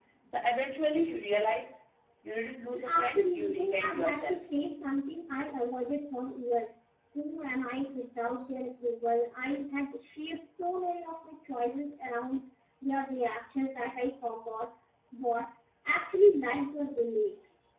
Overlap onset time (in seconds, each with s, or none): 2.7 s